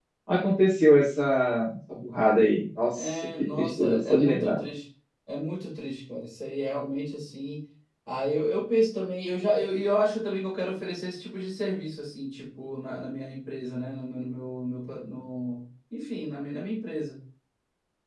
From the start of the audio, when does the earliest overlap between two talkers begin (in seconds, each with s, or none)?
2.8 s